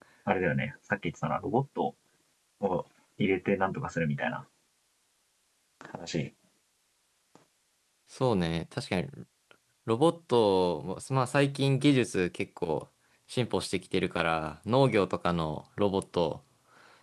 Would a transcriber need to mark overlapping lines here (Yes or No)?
No